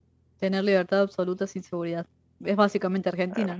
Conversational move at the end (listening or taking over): taking over